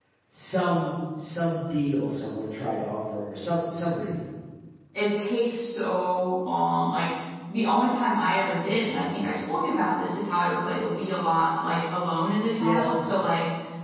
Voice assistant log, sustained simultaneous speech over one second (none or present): none